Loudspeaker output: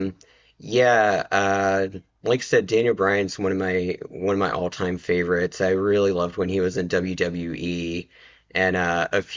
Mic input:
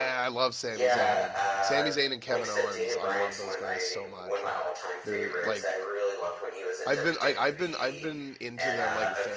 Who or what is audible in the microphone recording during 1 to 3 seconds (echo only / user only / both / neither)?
both